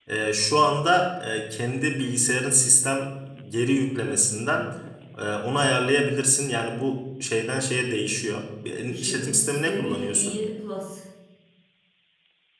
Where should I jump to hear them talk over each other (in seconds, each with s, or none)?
8.9 s